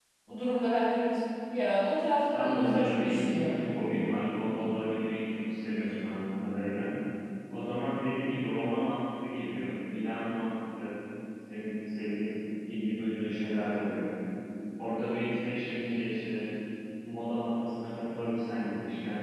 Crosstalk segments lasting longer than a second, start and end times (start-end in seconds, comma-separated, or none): 2.3-3.6